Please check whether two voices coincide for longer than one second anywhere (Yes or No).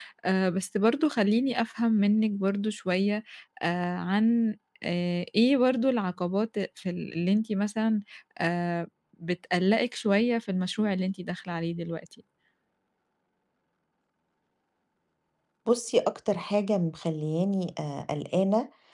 No